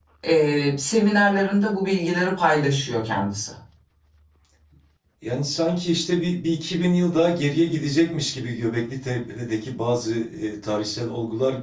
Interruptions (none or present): none